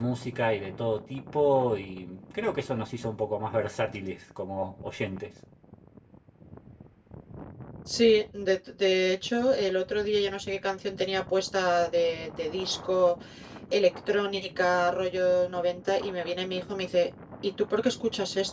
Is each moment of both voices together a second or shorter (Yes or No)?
Yes